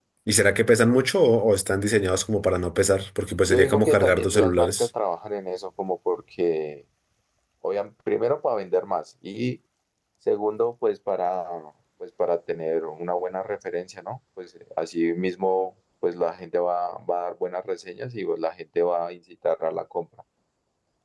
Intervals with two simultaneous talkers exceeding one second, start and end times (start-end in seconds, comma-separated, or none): 3.5-4.9